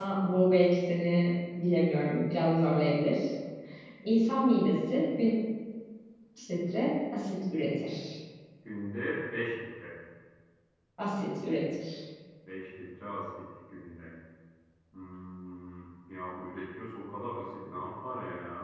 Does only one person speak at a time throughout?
Yes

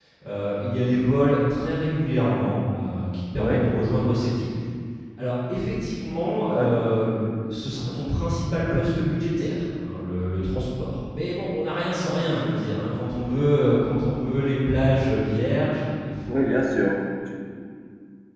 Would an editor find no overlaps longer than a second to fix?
Yes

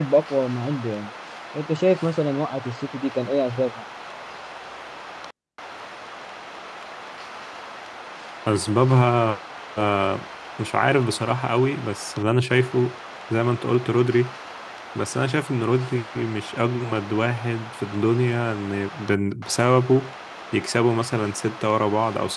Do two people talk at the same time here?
No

